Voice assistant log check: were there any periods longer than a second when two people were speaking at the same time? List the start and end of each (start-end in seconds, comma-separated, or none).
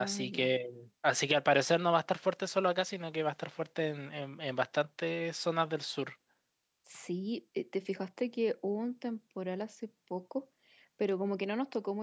none